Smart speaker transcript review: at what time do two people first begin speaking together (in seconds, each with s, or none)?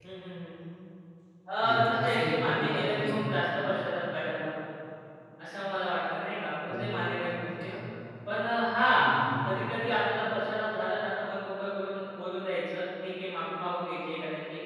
1.6 s